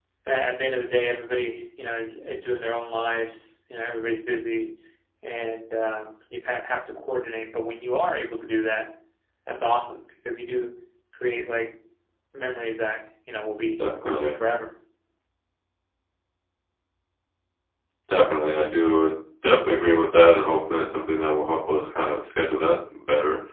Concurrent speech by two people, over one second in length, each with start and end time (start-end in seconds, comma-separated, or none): none